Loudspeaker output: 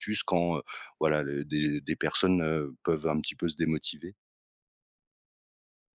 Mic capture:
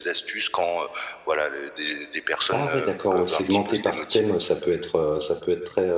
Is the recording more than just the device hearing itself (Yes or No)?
Yes